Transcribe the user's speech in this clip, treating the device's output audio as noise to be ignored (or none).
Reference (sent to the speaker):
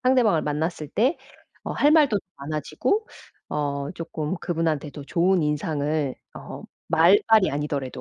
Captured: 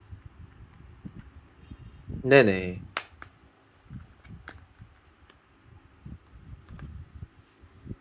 네네.